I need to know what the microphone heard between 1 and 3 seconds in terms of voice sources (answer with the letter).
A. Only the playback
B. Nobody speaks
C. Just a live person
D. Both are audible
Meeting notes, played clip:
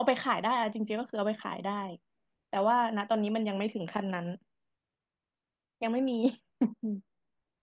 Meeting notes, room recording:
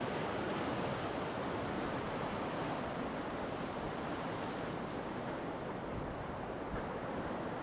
B